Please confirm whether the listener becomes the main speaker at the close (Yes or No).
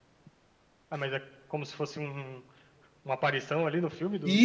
Yes